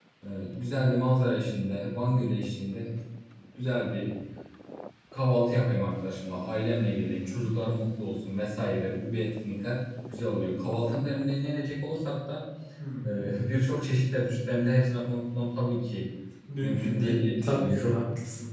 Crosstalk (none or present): present